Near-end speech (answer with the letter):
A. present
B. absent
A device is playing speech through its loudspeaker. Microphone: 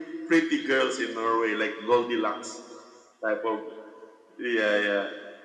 B